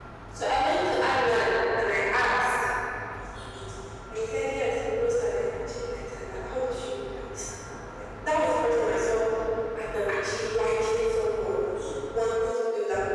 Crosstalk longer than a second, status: none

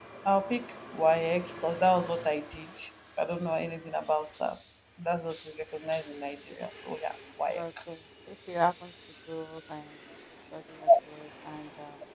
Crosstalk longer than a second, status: none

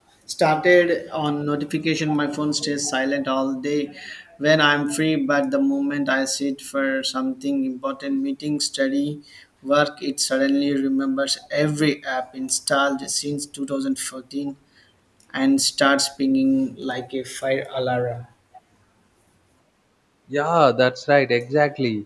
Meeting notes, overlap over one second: none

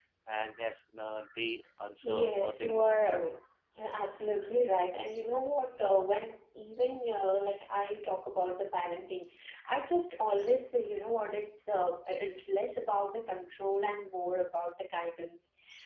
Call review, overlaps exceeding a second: present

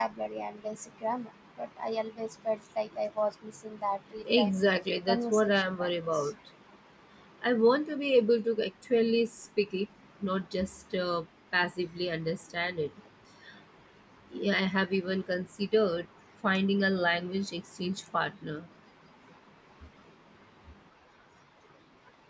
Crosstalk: present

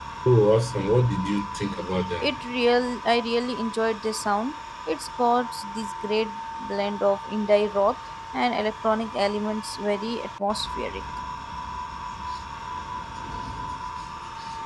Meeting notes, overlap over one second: none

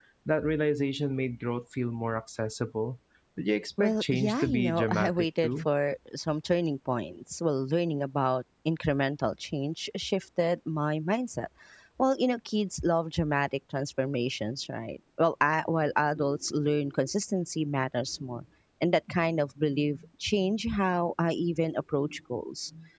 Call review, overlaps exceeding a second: present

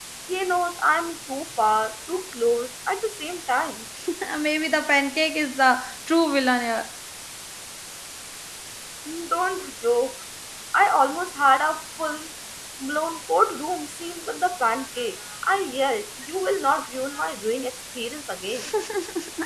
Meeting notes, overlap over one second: none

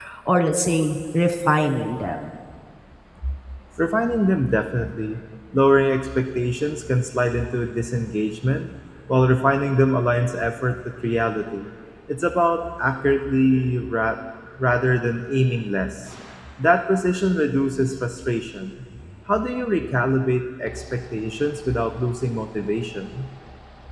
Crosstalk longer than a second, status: none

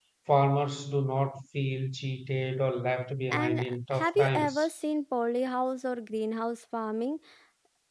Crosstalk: present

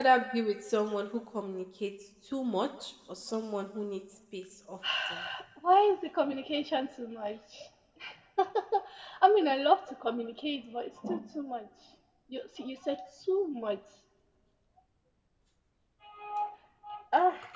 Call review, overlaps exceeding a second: none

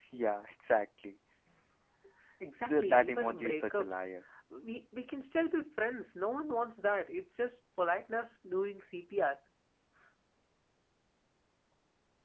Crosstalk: present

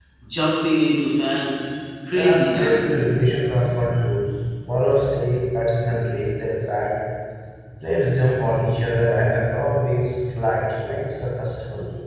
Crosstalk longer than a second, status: present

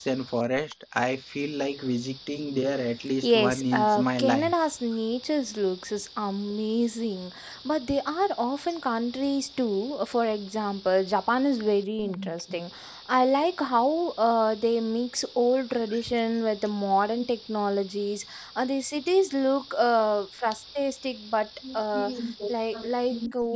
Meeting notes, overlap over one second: present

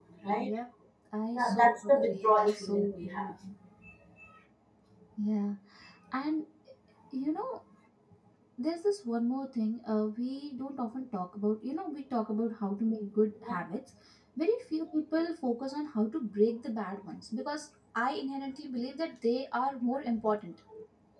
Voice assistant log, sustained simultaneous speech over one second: present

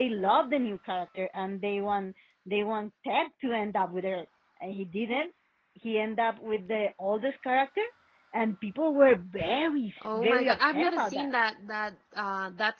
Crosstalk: present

